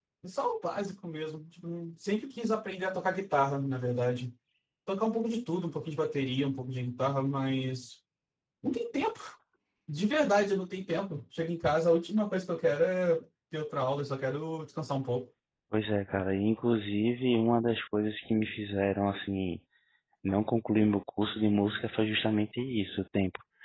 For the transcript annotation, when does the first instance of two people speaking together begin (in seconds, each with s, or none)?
none